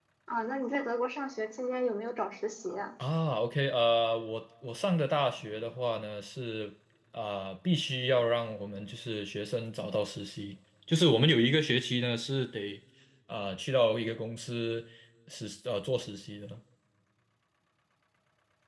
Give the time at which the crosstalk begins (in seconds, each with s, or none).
none